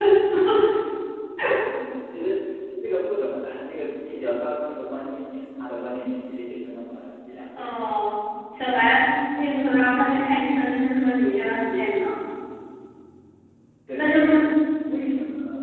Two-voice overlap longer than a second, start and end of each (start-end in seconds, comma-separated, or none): none